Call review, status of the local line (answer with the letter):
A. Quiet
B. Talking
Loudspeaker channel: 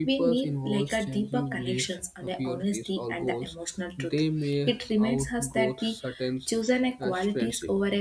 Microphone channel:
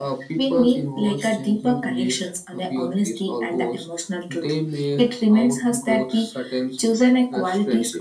A